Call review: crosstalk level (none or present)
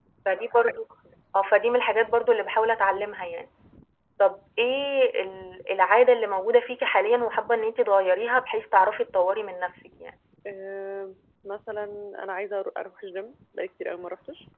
none